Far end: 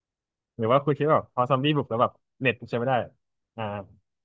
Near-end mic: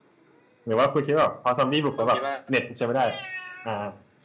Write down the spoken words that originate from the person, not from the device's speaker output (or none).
ผมคิดว่า